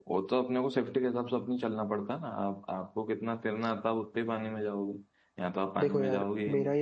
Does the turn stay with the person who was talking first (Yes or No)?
No